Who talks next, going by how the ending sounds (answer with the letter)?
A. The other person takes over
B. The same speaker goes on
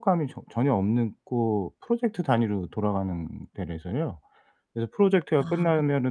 B